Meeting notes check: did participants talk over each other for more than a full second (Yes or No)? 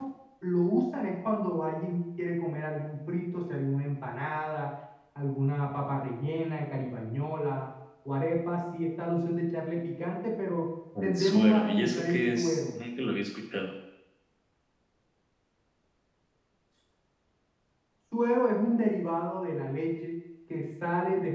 Yes